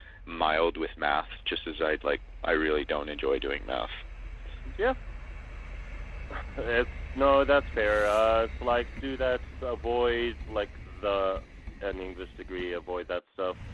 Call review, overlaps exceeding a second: none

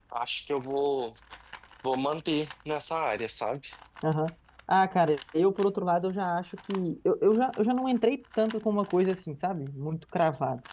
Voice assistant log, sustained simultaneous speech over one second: none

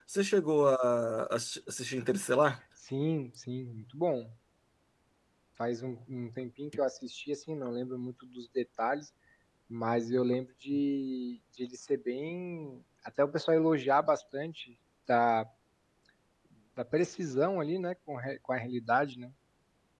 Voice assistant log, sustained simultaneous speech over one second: none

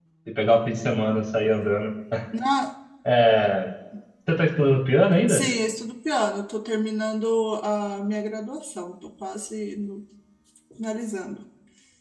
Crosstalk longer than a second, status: none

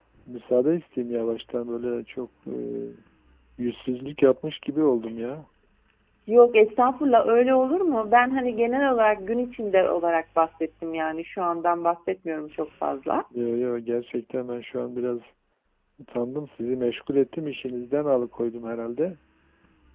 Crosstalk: none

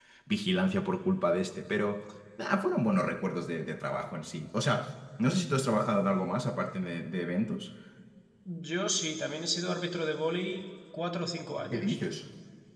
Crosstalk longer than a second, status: none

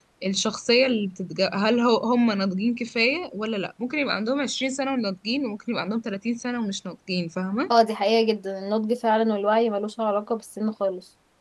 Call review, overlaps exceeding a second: none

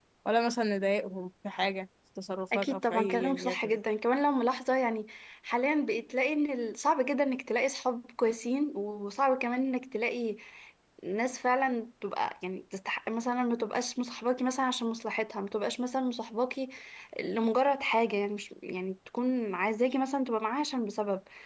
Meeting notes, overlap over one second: present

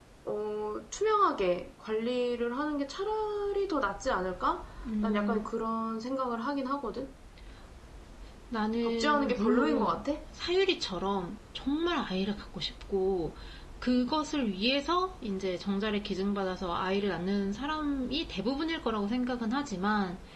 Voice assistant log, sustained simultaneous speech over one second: present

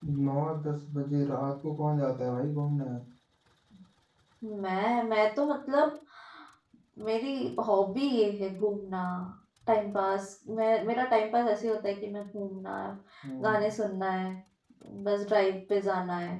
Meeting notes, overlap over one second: none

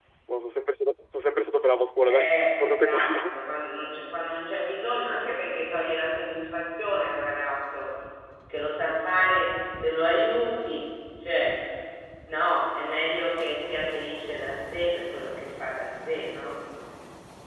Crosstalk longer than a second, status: present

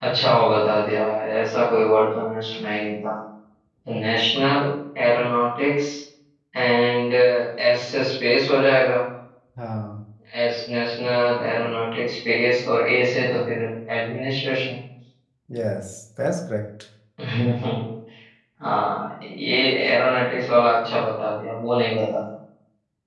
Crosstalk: none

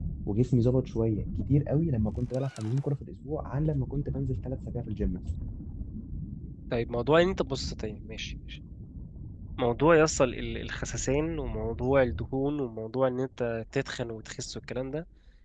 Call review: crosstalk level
none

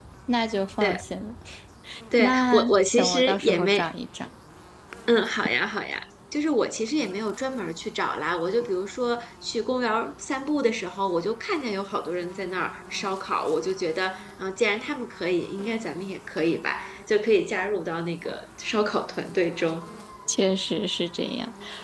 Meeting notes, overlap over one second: present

